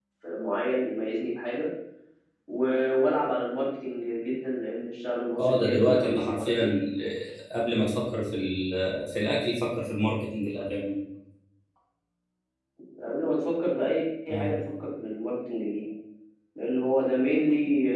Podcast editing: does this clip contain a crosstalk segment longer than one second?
Yes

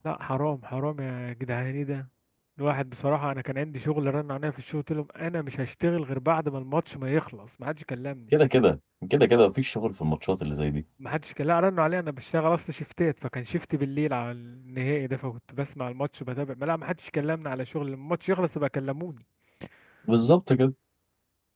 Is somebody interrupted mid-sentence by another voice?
No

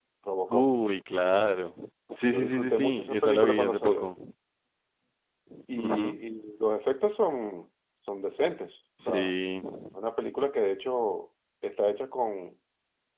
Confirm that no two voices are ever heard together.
No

